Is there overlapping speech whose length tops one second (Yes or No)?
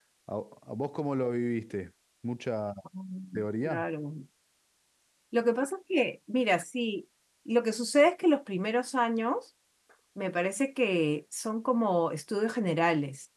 No